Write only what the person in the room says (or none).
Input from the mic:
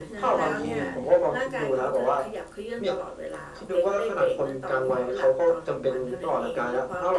none